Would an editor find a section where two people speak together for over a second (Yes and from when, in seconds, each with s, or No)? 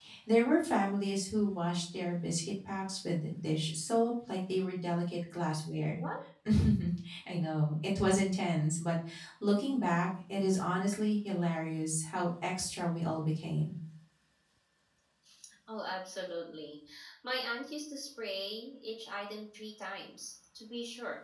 No